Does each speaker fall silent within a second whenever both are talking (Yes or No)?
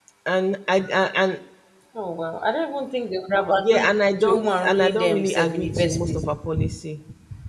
No